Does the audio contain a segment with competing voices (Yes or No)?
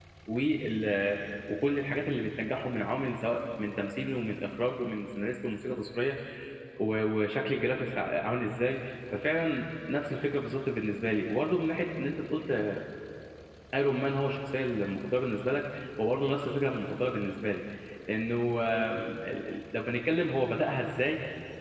No